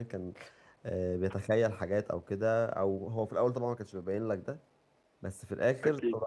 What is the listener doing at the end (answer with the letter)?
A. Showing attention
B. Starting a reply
A